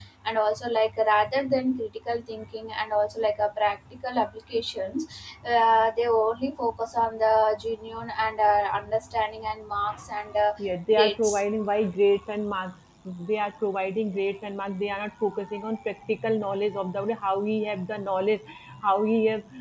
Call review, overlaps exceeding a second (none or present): none